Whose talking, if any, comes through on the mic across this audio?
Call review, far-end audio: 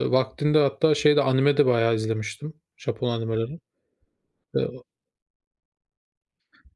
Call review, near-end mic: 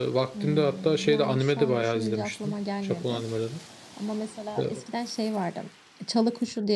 both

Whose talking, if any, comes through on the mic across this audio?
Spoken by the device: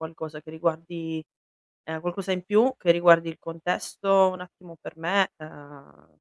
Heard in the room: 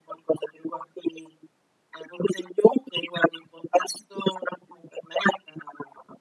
echo only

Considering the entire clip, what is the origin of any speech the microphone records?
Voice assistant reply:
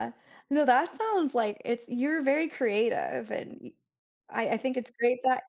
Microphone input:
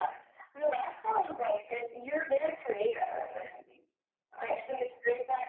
echo only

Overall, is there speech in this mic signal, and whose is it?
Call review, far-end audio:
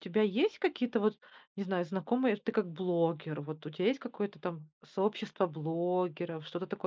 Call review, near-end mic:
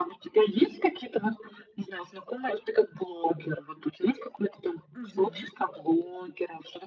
both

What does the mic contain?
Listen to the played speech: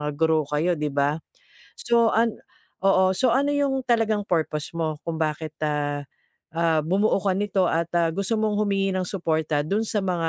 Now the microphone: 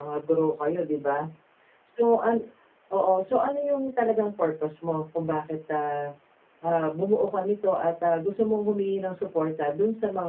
echo only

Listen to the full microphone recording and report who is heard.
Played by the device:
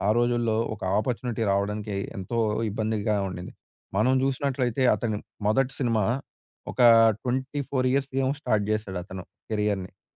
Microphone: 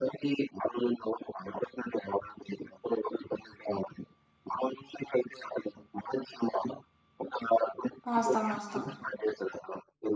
both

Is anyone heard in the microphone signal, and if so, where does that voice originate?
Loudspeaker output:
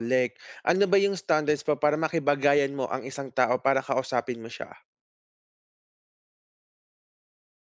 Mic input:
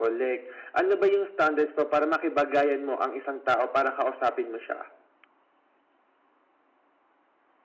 echo only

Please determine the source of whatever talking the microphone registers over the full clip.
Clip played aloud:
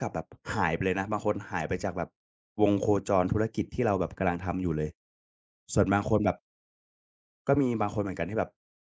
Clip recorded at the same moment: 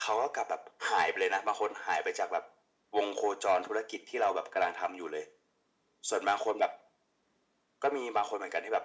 echo only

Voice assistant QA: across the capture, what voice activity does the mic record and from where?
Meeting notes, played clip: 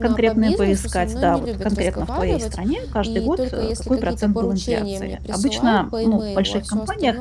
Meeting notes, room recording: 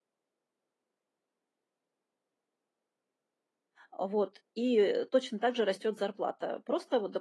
user only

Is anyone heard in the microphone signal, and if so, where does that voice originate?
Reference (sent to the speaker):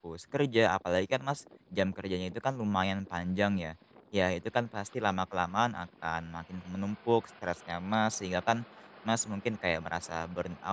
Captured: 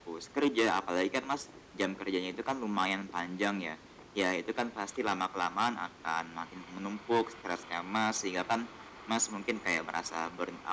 echo only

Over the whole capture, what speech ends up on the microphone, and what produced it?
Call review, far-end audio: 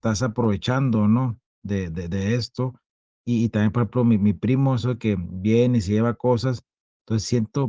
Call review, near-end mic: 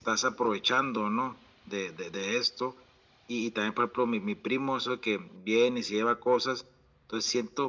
echo only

